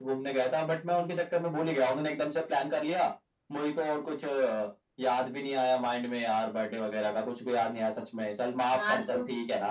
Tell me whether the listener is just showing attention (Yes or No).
No